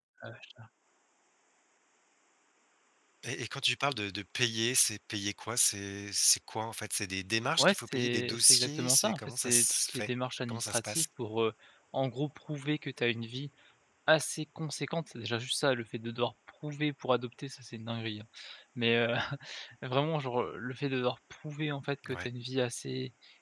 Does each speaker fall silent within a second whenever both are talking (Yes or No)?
No